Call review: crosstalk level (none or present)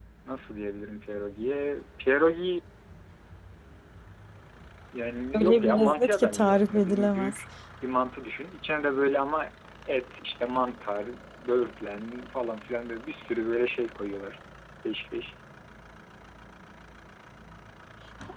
present